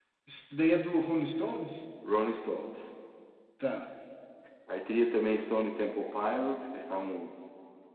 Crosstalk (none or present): none